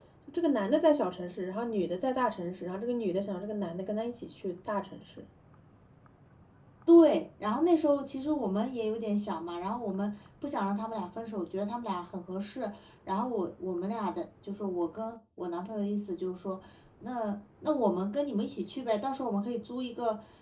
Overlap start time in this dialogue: none

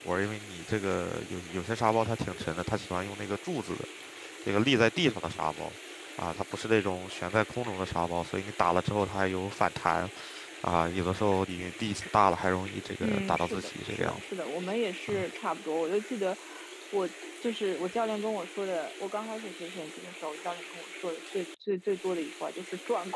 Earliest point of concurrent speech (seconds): 13.0 s

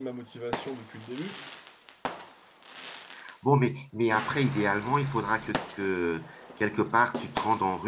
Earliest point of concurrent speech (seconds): none

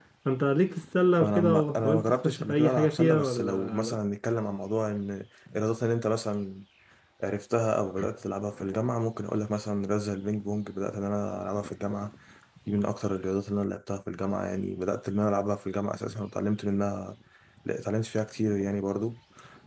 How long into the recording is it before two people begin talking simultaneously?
1.2 s

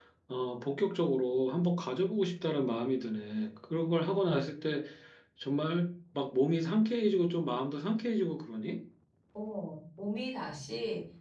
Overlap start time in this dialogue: none

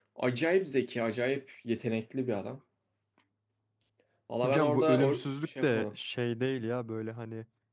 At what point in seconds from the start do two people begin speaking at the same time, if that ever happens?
4.4 s

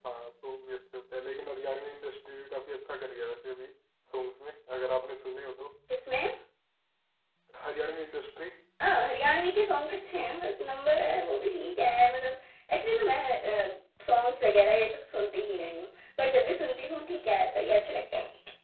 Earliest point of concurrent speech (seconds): none

